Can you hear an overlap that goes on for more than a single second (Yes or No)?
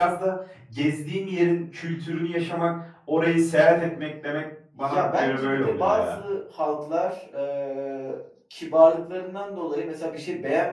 Yes